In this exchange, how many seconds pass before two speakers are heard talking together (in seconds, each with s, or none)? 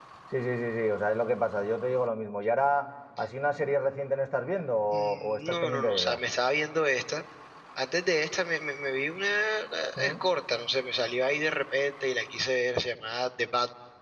4.9 s